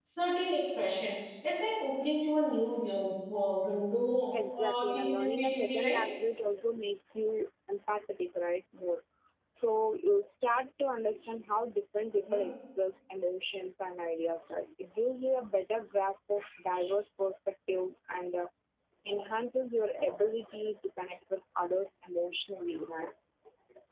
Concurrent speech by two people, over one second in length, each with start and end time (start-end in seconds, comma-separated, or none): 4.3-6.0